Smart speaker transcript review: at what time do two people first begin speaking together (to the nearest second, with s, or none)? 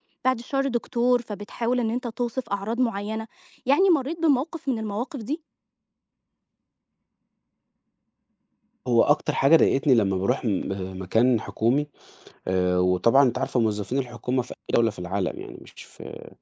none